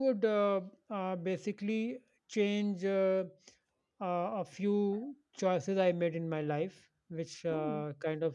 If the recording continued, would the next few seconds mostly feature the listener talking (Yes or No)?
No